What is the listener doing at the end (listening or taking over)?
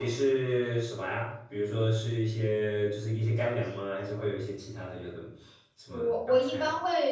taking over